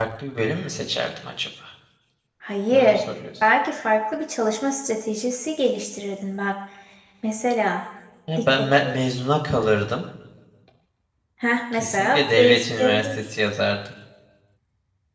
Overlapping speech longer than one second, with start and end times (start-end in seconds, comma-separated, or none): 11.7-13.2